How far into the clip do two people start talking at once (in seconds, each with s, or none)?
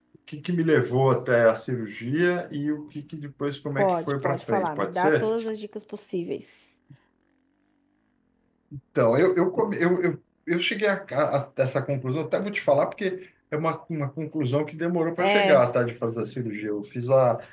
3.8 s